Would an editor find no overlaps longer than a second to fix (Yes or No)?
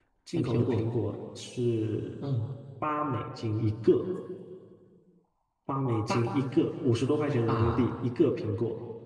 Yes